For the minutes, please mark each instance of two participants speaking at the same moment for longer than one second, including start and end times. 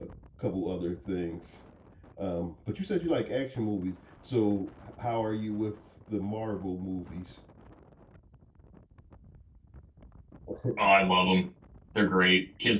none

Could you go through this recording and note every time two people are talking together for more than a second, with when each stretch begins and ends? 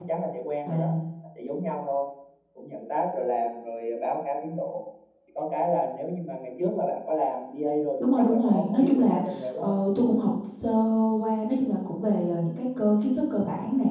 8.0-9.8

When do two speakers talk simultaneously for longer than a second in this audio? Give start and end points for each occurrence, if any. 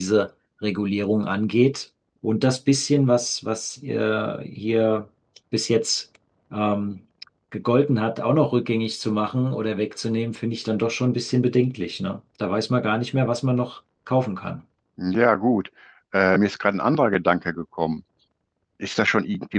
none

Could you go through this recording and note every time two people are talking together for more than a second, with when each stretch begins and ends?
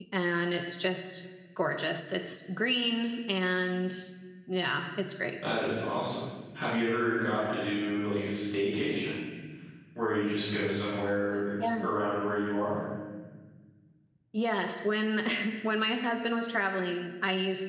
none

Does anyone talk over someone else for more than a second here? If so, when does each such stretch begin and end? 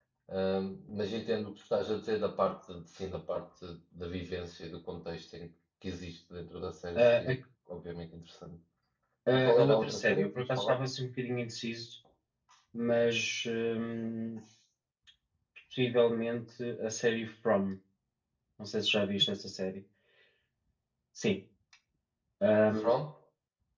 9.3-10.8

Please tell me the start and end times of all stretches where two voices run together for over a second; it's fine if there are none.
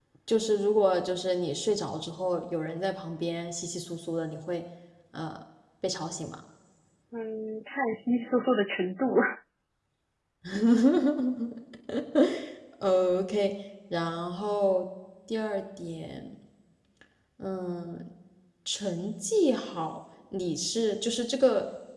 none

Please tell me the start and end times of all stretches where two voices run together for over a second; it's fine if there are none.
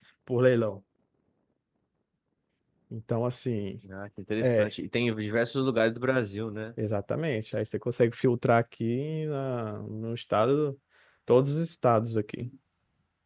none

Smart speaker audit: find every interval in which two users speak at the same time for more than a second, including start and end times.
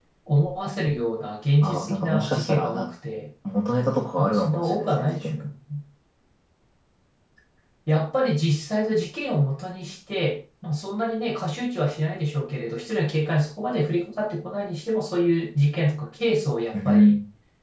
1.6-2.9, 4.2-5.5

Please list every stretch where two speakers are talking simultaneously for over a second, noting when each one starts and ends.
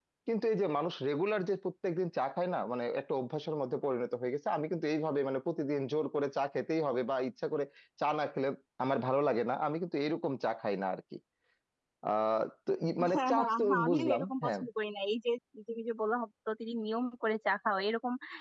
13.1-14.6

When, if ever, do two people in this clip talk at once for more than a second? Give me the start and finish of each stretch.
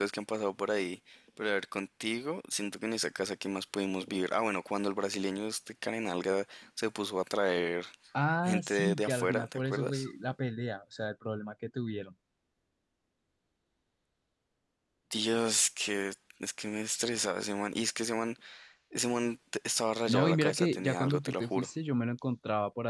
8.4-10.1, 20.1-21.7

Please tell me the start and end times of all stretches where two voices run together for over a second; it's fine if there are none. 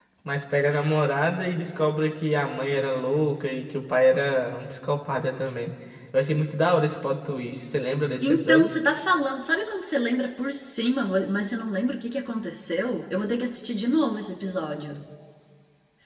none

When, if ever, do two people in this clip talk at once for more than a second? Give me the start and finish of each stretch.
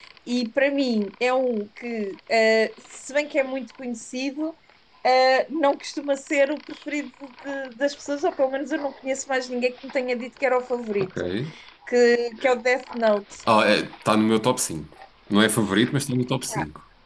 none

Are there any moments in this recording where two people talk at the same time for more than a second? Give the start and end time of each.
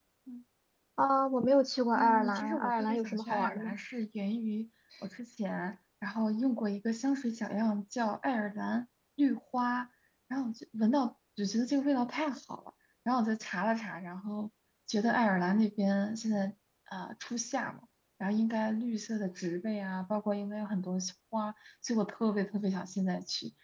2.0-3.8

